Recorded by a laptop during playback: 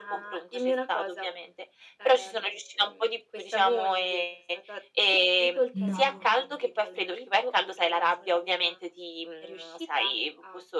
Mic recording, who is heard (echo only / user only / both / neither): both